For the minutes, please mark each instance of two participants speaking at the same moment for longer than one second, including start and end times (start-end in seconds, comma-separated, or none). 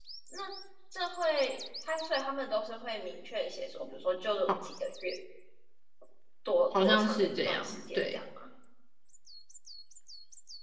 6.8-8.2